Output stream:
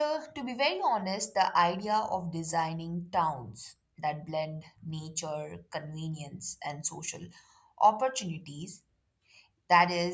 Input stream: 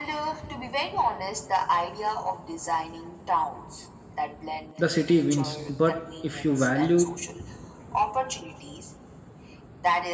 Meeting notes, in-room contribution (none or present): present